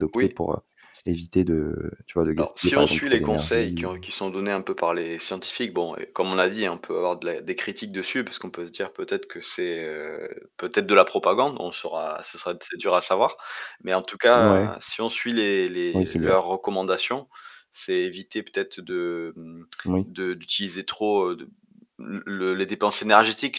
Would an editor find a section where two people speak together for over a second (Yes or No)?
Yes